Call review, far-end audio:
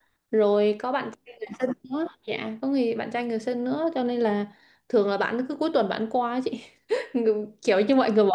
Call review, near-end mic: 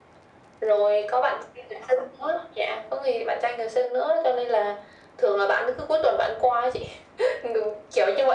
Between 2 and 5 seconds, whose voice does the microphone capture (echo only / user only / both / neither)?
echo only